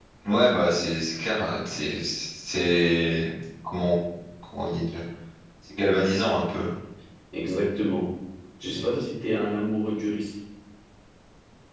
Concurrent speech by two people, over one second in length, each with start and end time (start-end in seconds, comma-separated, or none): none